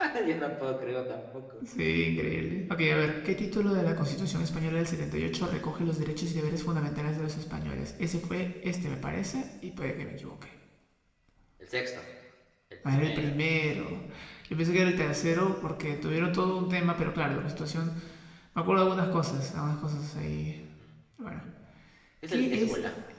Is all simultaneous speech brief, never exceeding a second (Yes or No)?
Yes